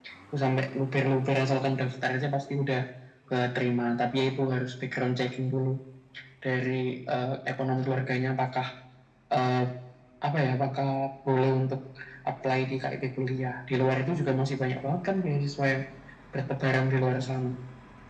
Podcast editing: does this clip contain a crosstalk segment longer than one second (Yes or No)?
No